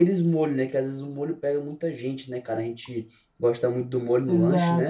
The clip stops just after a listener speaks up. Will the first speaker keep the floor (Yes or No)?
No